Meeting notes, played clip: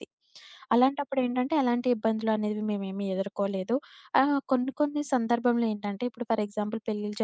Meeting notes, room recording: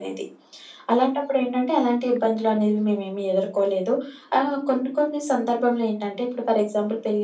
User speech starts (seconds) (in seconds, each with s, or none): none